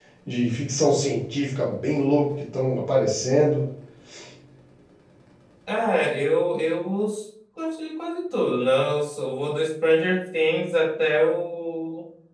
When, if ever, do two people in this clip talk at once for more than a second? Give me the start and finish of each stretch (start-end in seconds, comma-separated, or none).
none